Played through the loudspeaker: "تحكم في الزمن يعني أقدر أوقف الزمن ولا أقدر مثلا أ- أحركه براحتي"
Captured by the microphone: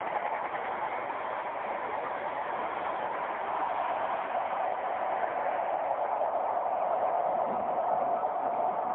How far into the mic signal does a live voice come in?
none

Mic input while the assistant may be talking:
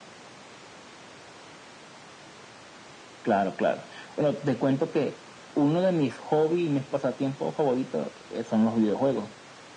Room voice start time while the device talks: none

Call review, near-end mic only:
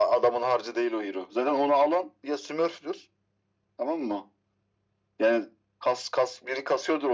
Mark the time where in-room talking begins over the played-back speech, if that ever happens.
none

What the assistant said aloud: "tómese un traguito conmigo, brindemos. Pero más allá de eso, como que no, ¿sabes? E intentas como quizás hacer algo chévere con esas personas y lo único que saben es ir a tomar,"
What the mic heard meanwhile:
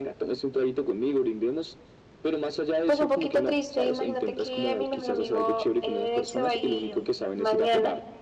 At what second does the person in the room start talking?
2.8 s

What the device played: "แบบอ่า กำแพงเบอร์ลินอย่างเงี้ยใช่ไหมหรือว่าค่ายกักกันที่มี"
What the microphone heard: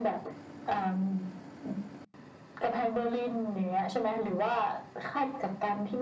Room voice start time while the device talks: none

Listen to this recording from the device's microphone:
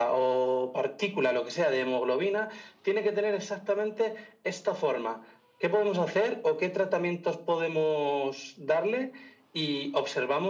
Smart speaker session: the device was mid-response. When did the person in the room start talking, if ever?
none

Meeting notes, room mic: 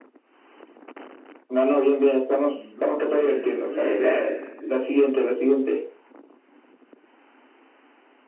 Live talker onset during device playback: 2.5 s

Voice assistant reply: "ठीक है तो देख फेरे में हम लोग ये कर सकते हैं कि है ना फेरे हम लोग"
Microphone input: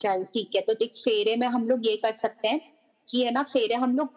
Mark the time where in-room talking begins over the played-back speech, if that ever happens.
none

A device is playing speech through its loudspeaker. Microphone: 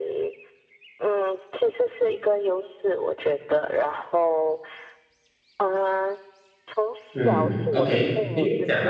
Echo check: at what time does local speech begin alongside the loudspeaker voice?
7.1 s

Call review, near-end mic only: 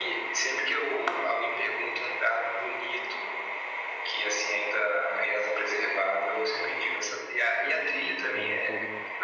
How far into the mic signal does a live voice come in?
7.6 s

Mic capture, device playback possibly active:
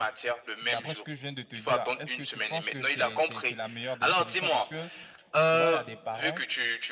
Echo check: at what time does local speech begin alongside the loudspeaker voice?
0.6 s

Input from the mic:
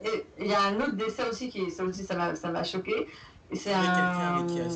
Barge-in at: 3.6 s

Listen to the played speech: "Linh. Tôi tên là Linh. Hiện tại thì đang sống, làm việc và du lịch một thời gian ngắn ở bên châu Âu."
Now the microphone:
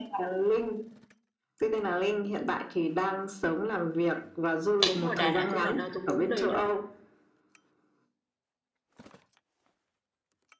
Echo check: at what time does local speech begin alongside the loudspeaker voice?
4.9 s

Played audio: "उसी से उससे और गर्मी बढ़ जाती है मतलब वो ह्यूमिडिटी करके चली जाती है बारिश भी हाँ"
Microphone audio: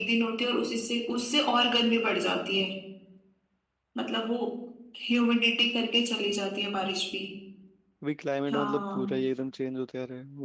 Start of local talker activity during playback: 8.0 s

